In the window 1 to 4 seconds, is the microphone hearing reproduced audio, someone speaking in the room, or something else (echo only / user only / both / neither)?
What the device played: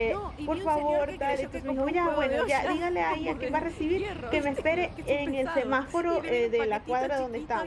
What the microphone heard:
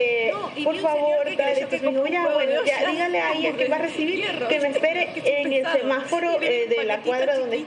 echo only